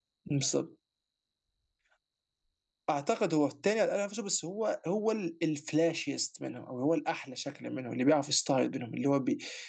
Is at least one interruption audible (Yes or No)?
No